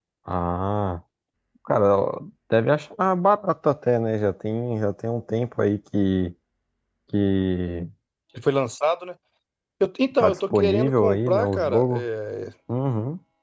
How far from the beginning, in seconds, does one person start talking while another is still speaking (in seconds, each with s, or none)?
10.2 s